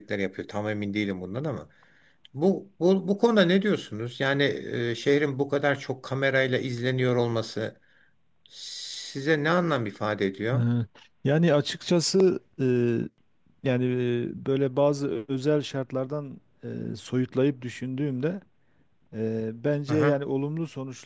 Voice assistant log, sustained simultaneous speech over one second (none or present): none